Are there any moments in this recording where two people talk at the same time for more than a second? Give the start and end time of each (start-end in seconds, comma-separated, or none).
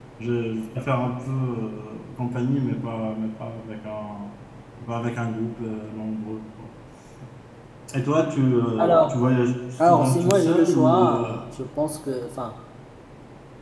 9.9-11.4